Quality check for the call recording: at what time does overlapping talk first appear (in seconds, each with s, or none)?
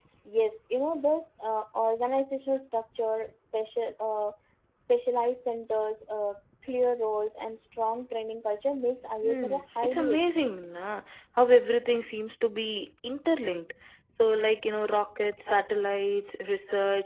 9.2 s